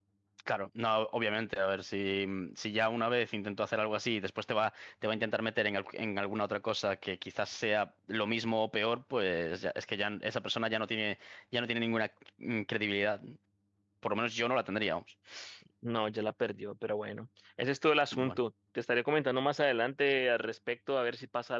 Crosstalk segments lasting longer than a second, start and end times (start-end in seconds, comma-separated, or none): none